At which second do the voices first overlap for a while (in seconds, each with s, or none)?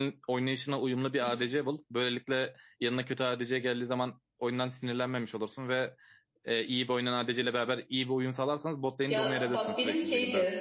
9.1 s